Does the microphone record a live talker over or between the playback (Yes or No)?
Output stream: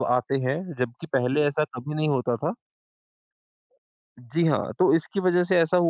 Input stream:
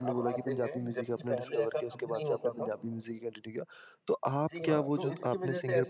Yes